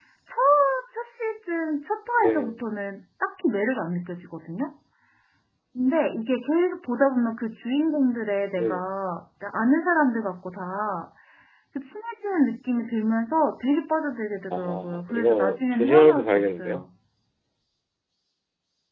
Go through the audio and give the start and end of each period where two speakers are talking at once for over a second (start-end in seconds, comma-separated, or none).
14.5-16.9